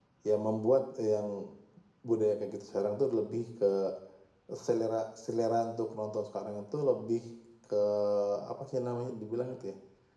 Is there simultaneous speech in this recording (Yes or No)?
No